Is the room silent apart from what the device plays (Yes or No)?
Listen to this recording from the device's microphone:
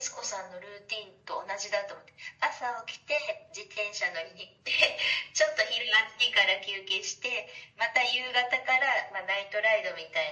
Yes